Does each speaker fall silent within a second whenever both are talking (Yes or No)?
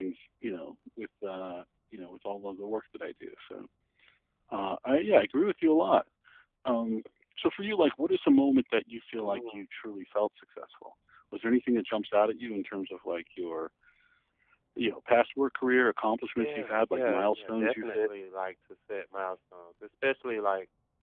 No